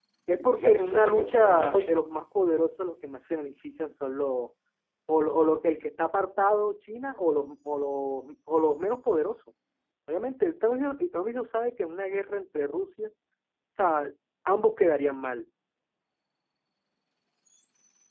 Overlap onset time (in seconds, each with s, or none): 0.6 s